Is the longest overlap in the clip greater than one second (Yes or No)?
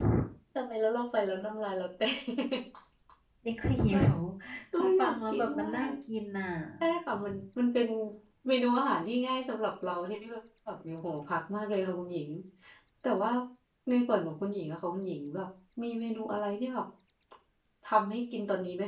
Yes